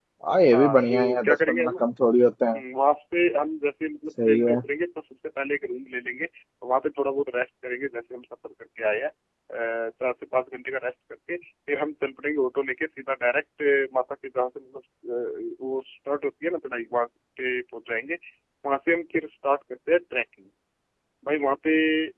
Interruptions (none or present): present